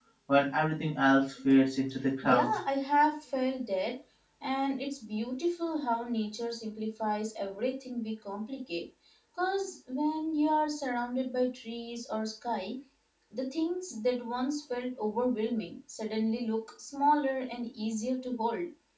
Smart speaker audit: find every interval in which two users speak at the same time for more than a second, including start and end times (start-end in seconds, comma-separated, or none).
none